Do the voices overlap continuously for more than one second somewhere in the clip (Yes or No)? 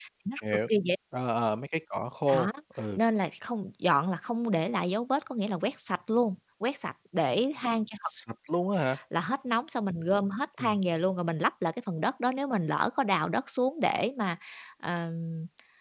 No